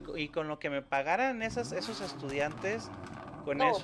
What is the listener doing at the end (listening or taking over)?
taking over